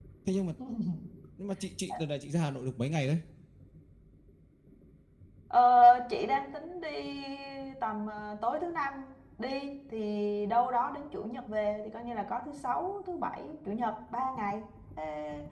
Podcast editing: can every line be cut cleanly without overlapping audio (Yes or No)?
Yes